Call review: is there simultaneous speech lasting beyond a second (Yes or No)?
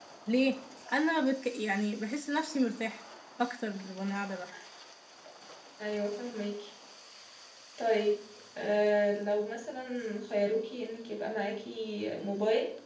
No